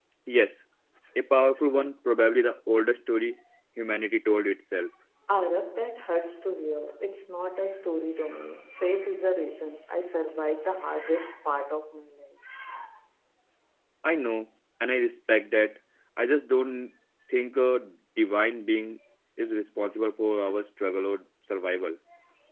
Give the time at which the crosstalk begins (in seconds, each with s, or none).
none